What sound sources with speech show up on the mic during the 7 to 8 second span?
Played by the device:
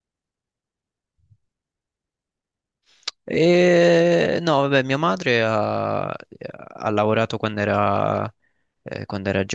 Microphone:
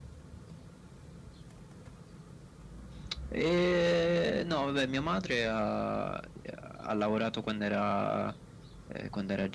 echo only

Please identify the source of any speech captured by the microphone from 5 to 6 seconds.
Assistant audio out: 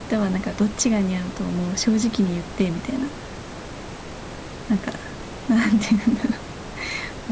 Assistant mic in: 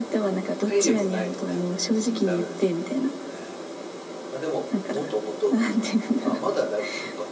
both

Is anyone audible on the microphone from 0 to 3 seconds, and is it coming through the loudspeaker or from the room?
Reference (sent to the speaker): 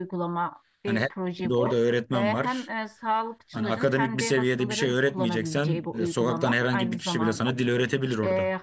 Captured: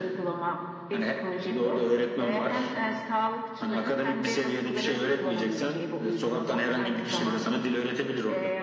echo only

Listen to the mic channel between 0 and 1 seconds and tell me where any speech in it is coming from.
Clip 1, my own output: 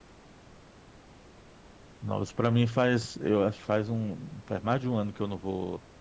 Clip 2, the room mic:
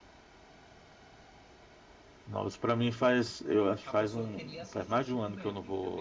neither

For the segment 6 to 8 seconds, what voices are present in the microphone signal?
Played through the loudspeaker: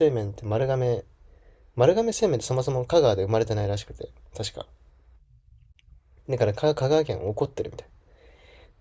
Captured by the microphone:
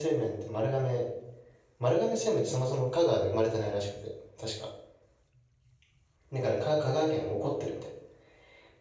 echo only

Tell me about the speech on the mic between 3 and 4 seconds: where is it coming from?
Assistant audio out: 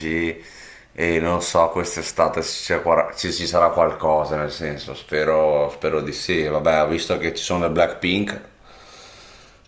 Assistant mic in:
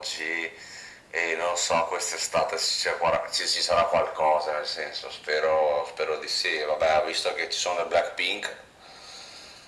echo only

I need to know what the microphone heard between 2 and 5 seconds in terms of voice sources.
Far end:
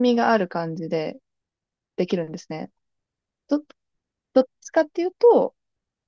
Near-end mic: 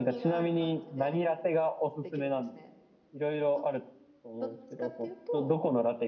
both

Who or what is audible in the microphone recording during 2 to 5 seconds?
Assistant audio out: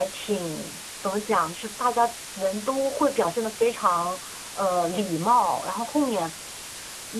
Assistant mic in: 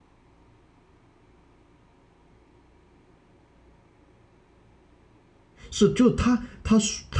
neither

